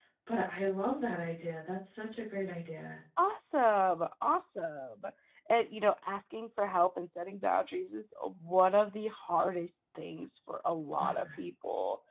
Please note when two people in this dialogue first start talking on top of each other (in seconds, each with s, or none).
none